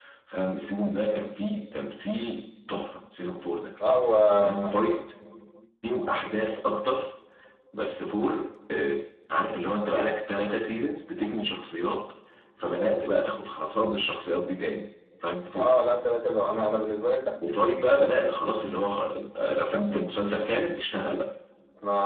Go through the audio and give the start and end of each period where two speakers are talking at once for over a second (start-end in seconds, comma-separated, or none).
none